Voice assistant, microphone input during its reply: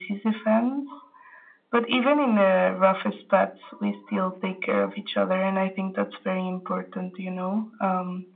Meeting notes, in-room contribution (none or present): none